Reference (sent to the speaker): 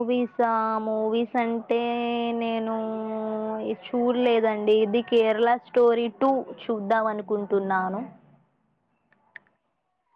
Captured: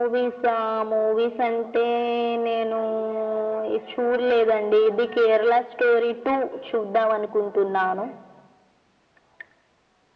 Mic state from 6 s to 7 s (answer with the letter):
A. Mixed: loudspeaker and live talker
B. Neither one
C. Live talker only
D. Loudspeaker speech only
D